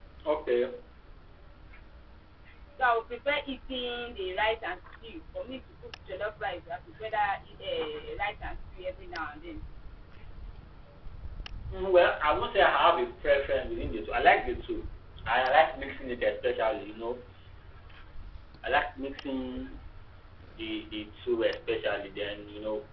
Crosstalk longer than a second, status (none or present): none